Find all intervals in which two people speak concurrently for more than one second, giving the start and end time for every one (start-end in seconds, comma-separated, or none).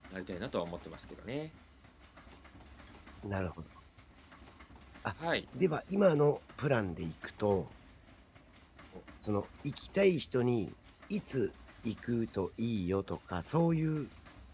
none